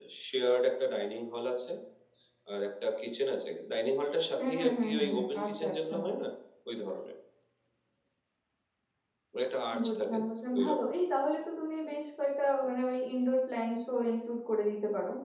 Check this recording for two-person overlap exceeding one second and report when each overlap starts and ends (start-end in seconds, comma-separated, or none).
4.4-5.9